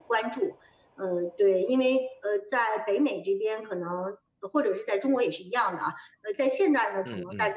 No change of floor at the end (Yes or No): Yes